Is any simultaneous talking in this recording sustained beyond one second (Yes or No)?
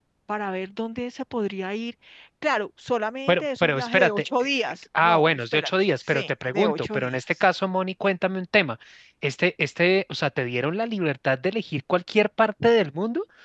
Yes